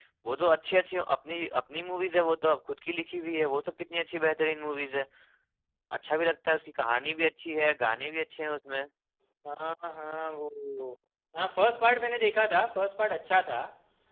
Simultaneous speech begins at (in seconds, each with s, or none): none